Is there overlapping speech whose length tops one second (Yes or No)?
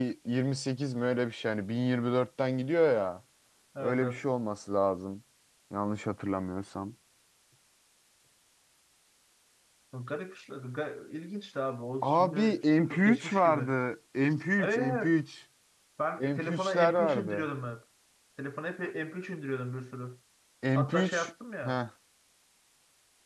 Yes